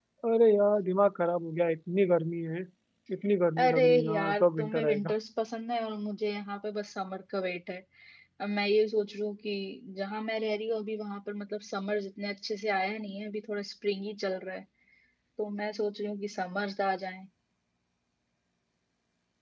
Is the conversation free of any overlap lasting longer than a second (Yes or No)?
No